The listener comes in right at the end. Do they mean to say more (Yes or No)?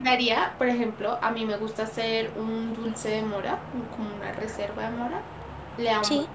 No